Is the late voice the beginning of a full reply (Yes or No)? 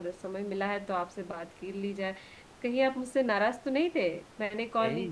Yes